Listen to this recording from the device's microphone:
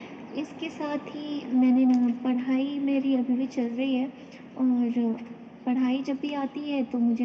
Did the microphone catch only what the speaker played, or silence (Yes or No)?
Yes